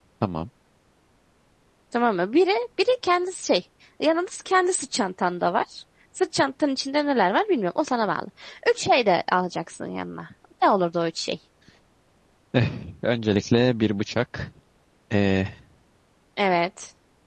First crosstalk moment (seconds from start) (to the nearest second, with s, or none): none